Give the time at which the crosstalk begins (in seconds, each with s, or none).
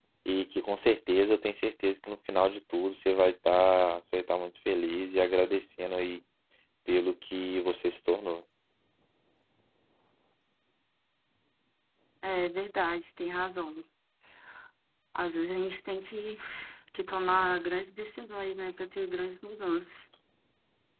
none